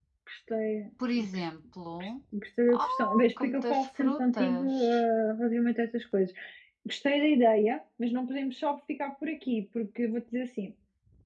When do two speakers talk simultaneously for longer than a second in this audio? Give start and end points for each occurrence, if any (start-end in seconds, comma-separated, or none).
2.7-5.0